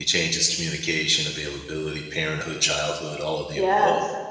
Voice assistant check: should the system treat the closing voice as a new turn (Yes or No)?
Yes